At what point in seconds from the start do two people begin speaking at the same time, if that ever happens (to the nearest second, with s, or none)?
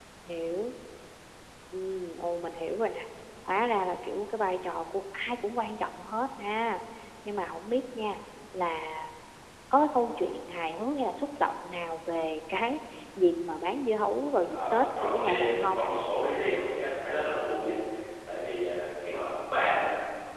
14 s